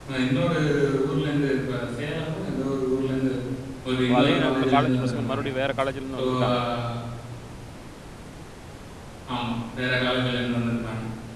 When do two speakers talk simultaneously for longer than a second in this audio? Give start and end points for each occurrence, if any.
4.1-5.4

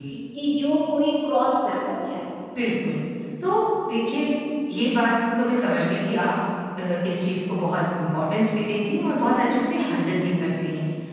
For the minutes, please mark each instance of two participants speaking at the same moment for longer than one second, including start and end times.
none

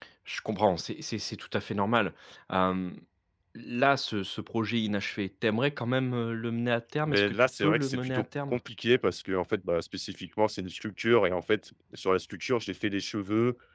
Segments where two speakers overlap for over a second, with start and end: 7.1-8.6

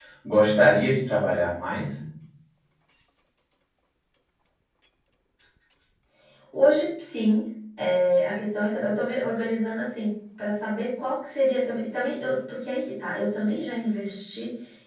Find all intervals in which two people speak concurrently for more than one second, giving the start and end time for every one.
none

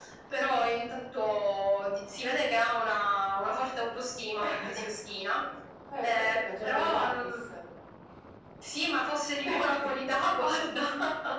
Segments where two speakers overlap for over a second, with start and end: 6.0-7.3

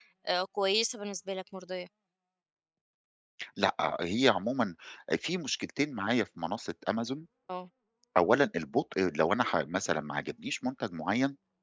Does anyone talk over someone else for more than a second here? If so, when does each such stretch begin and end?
none

